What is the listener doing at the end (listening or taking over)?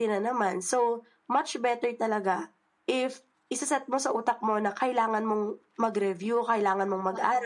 listening